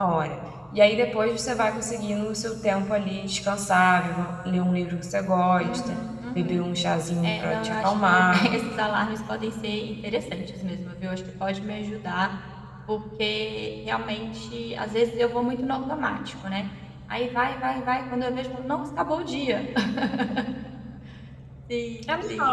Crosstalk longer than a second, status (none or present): present